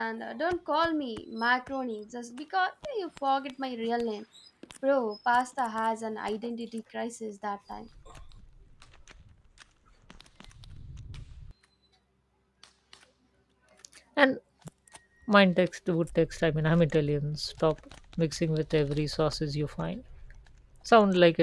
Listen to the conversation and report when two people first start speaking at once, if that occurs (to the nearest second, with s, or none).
none